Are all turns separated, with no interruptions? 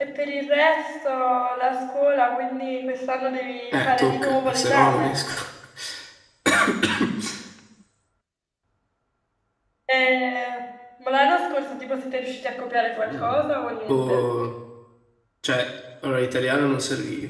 No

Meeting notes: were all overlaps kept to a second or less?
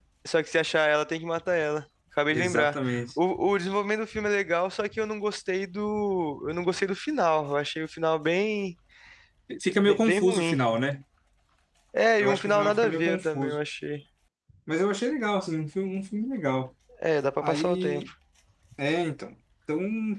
No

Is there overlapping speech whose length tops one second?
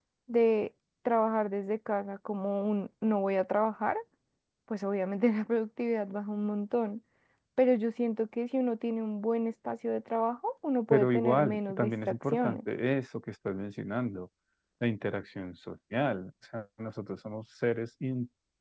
Yes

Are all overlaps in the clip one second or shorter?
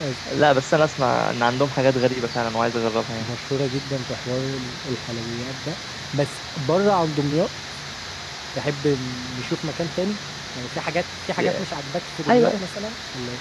Yes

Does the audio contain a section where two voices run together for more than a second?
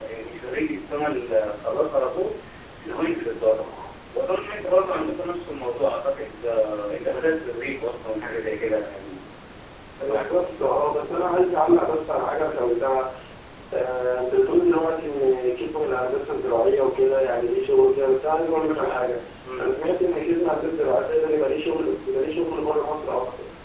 No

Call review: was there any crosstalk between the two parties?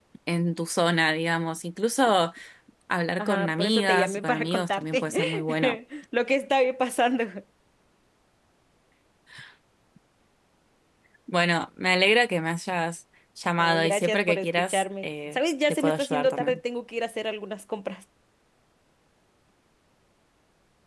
Yes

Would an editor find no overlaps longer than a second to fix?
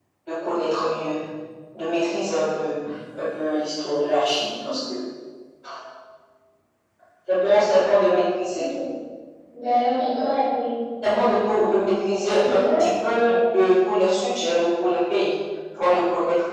Yes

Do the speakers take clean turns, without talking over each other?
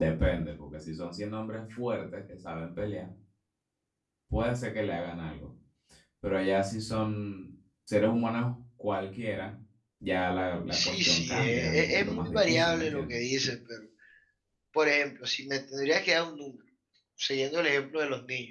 No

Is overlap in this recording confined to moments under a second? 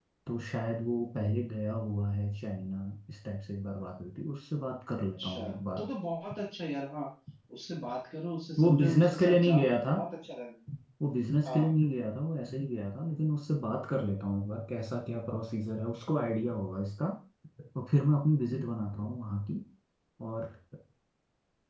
No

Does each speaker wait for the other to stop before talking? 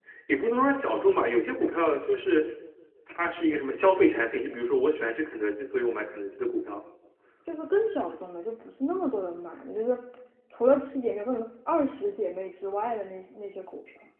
Yes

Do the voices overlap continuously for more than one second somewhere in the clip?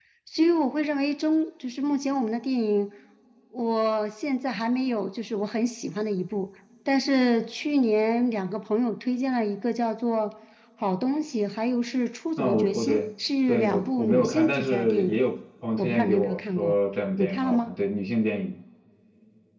Yes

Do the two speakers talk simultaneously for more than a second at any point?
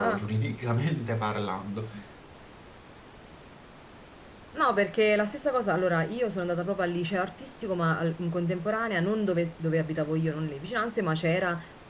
No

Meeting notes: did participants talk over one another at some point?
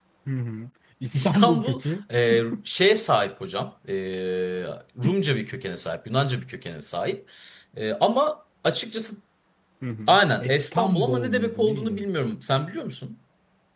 Yes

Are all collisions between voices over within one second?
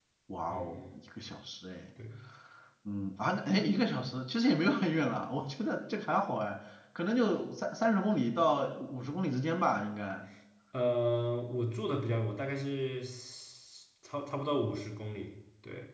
Yes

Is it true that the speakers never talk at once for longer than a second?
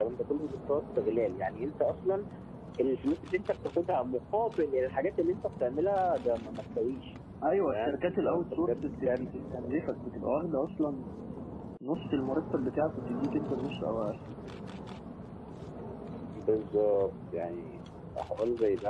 No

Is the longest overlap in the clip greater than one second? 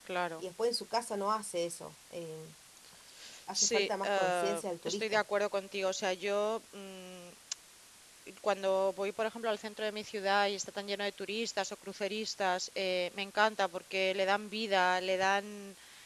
Yes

